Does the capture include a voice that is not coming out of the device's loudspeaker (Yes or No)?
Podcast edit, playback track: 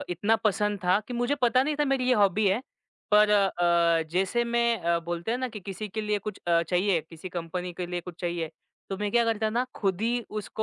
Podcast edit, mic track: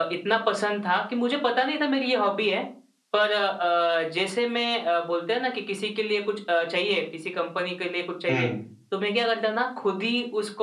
Yes